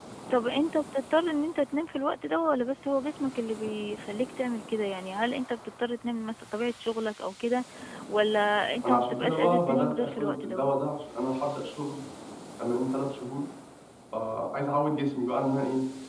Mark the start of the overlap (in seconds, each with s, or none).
8.8 s